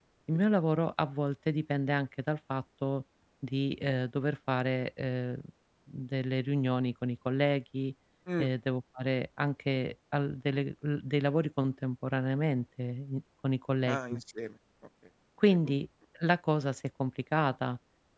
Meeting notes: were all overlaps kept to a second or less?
Yes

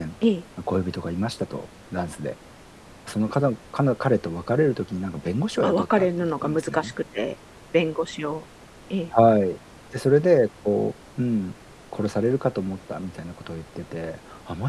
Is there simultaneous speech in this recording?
Yes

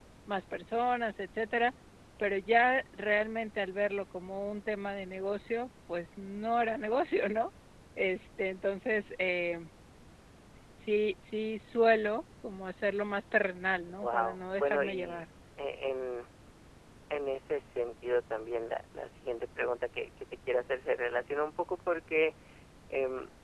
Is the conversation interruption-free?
No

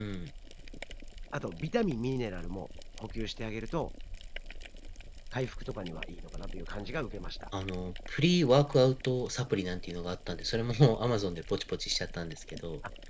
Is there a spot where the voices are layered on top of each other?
No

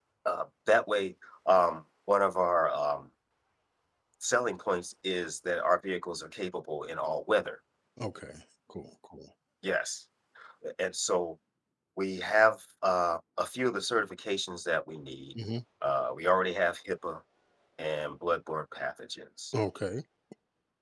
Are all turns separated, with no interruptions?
Yes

